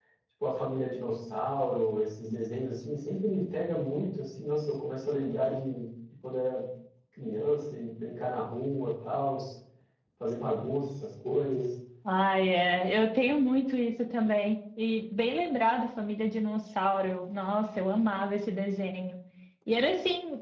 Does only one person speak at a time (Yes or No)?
Yes